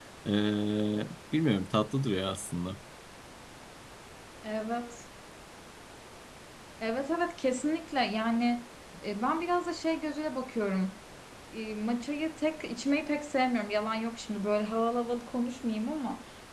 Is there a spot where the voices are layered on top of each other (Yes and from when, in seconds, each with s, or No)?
No